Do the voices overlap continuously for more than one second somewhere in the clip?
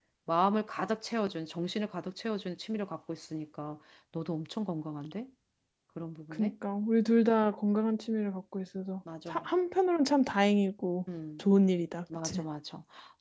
No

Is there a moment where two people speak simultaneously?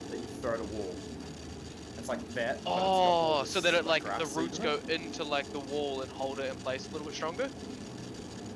Yes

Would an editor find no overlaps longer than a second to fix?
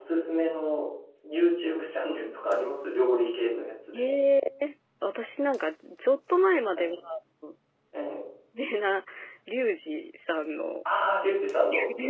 Yes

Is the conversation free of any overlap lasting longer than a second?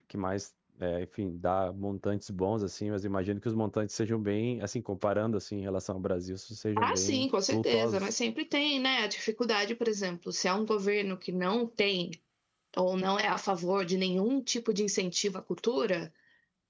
No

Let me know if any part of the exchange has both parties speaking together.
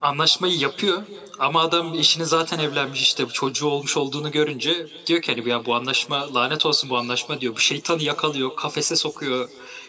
No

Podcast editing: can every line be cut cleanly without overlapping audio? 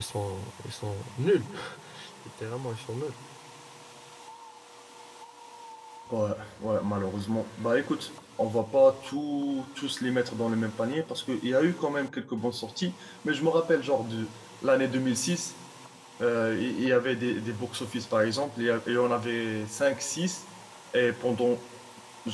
Yes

